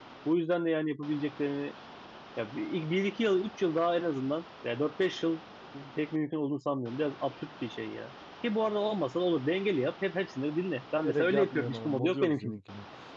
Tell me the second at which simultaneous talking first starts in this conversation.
11 s

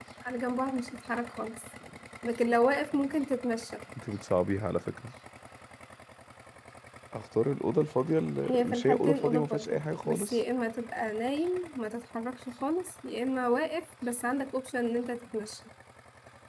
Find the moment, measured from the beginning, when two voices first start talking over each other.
8 s

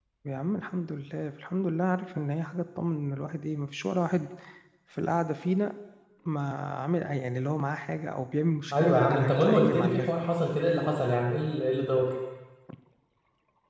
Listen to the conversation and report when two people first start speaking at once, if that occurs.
9 s

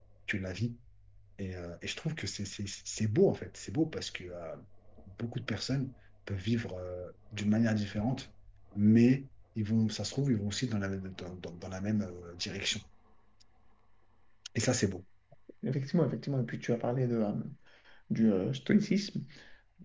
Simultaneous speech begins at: none

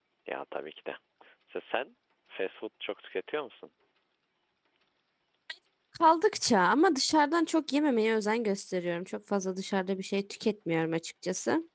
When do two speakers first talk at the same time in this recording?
none

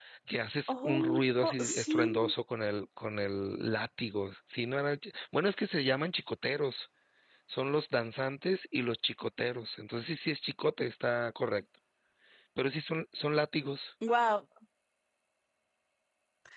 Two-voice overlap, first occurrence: 1 s

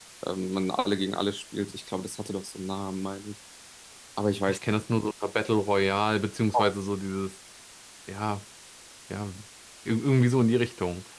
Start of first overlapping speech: none

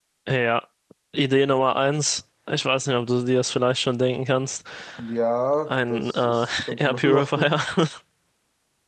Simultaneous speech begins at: 6 s

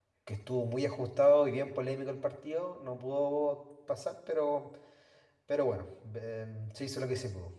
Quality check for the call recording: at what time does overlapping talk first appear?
none

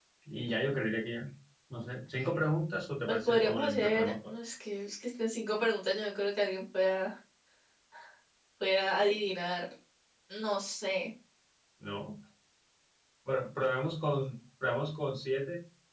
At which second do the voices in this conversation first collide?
3 s

